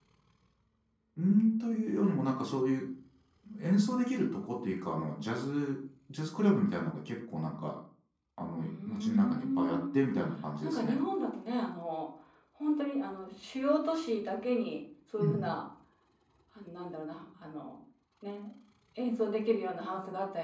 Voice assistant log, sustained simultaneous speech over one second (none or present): present